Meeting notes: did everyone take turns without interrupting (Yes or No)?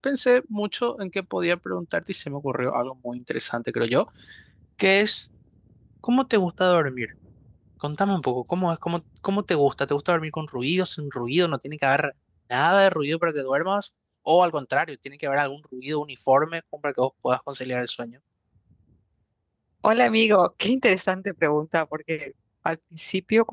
Yes